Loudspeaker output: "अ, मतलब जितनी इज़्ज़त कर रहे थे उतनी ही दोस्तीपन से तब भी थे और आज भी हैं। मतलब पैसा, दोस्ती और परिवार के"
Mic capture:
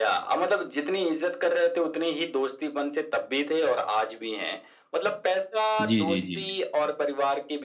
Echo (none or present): present